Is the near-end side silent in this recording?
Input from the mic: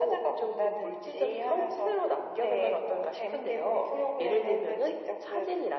Yes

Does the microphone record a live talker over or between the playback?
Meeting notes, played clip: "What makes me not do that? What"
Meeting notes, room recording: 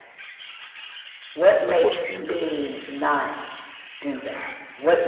Yes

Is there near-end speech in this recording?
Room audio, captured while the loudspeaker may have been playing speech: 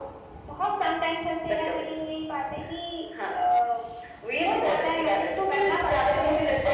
No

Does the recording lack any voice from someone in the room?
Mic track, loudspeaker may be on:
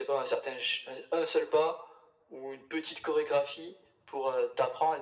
Yes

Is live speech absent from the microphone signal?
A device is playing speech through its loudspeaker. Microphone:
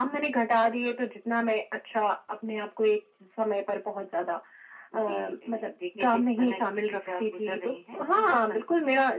Yes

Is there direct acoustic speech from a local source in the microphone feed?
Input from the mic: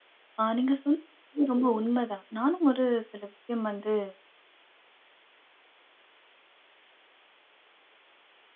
Yes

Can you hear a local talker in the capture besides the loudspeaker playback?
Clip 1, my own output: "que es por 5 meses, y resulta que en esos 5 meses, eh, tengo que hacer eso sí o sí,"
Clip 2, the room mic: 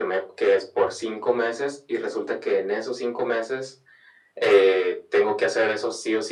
No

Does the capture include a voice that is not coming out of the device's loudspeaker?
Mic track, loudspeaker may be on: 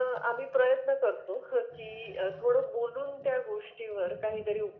No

